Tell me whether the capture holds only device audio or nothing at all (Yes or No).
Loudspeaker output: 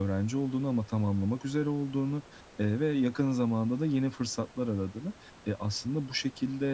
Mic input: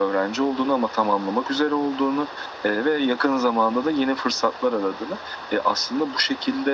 Yes